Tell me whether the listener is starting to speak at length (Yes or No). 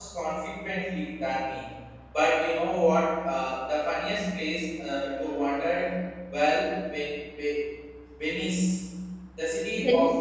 No